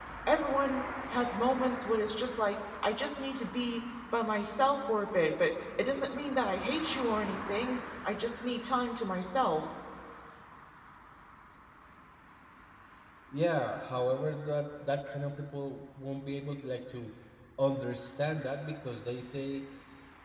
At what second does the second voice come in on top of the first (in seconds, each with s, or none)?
none